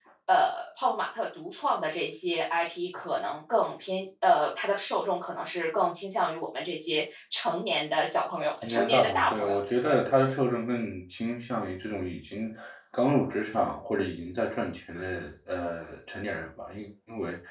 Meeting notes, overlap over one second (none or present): present